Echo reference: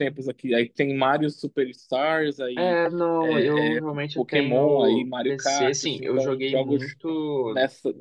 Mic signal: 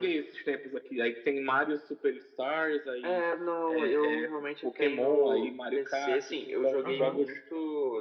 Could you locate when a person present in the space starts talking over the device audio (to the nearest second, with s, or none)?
7 s